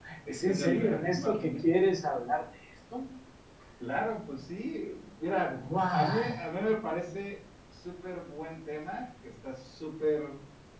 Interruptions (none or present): present